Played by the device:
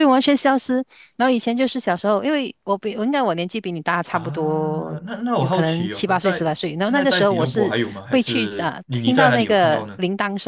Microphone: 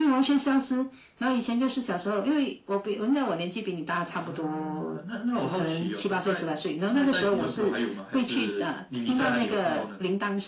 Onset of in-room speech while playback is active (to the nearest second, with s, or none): none